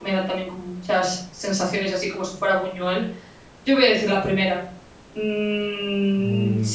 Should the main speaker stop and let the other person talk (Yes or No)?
Yes